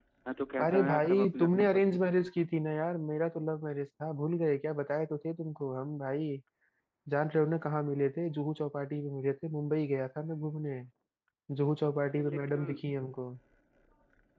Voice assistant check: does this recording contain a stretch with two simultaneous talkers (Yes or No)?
Yes